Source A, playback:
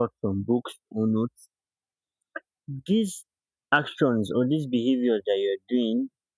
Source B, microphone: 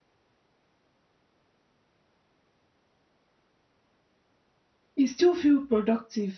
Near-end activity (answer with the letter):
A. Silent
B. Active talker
B